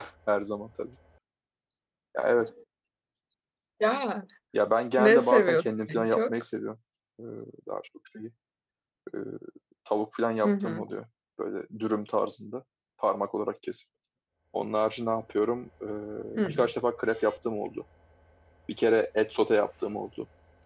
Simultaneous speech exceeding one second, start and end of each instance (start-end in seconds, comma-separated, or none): 5.0-6.3